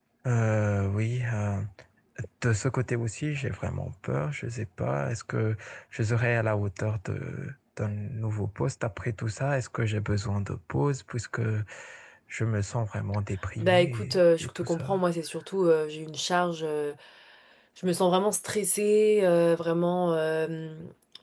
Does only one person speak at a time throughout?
No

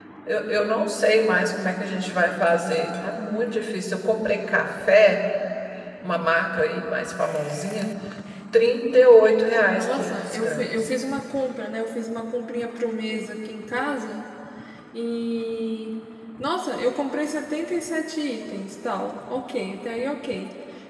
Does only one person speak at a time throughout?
No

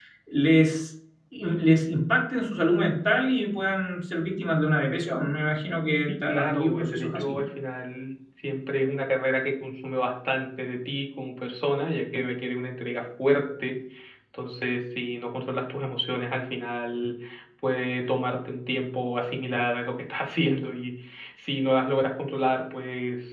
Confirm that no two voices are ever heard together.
No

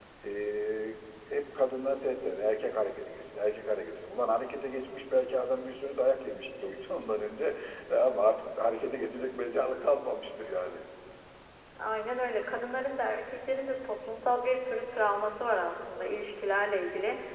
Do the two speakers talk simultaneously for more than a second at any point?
No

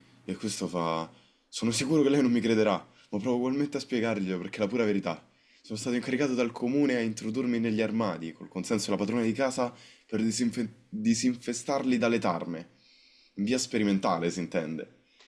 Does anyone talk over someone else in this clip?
No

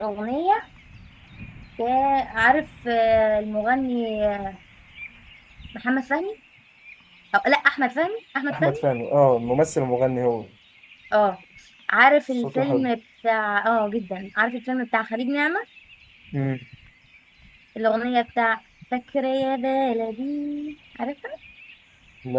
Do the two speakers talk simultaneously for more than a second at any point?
No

